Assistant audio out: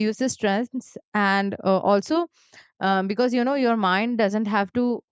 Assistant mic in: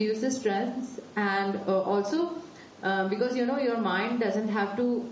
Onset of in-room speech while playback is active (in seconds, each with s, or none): none